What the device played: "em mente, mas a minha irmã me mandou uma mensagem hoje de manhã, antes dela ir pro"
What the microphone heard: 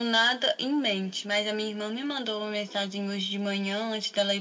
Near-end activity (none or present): none